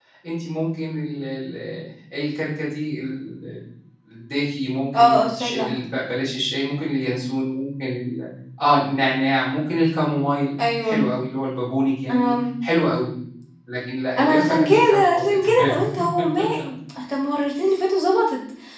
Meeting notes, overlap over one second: present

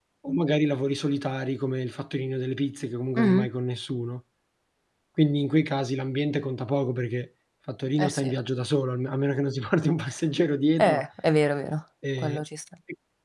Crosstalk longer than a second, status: none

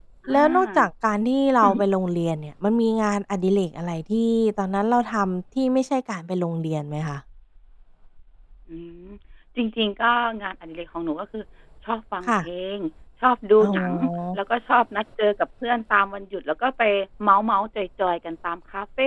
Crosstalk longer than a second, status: none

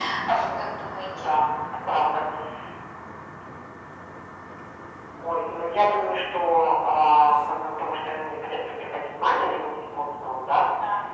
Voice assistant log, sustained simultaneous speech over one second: none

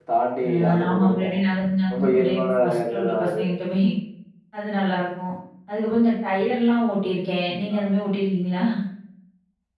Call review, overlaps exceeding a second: present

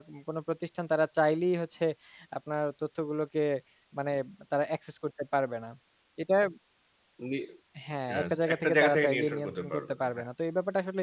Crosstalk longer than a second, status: present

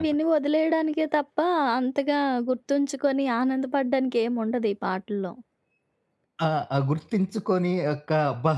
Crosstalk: none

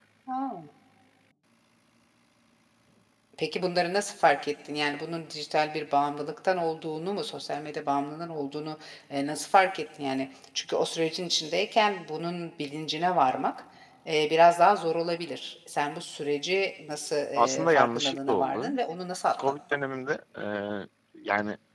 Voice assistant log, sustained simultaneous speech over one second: present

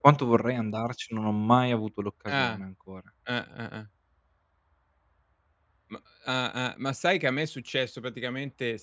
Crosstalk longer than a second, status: none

